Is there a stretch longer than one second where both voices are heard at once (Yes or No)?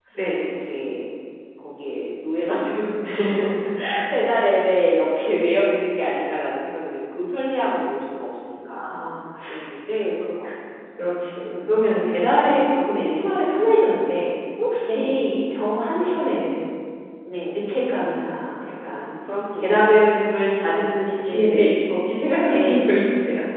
No